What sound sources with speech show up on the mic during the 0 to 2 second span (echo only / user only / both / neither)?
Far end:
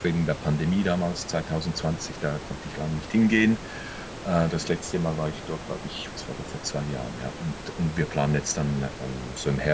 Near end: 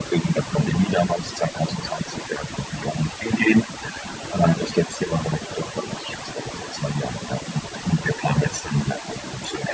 echo only